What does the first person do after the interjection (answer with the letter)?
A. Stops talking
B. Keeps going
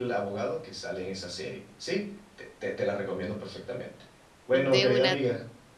B